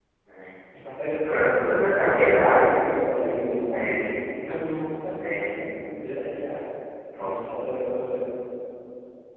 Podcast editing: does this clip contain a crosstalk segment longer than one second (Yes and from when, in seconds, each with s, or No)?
Yes, from 1.3 s